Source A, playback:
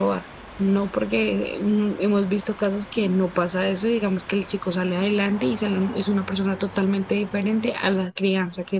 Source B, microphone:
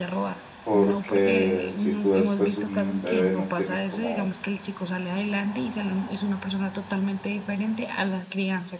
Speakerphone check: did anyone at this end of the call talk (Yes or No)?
Yes